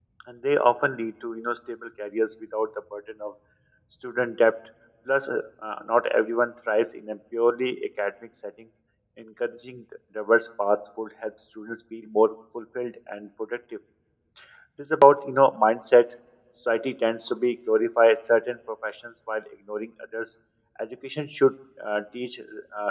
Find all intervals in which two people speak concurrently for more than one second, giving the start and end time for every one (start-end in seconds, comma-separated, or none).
none